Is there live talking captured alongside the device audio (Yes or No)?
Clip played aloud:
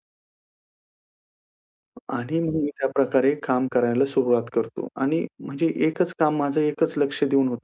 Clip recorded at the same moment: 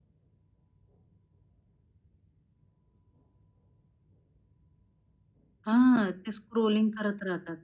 Yes